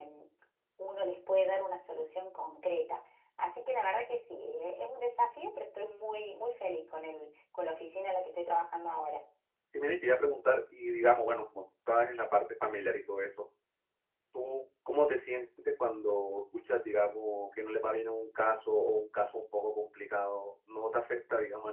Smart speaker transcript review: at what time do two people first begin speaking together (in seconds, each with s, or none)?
none